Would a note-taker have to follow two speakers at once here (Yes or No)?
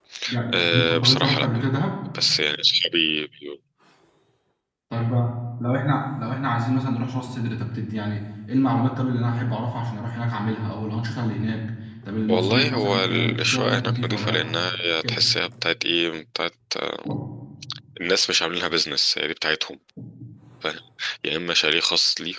Yes